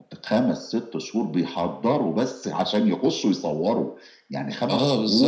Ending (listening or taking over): listening